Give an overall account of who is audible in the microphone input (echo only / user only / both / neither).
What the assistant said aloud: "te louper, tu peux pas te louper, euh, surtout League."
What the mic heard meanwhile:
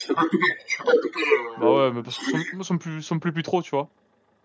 both